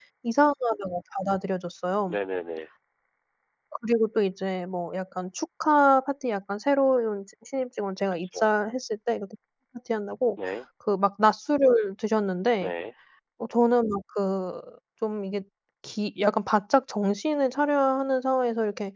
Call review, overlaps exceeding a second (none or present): none